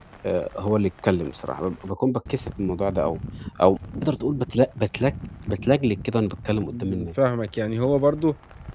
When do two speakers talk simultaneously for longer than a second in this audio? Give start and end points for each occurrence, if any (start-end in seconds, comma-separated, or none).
none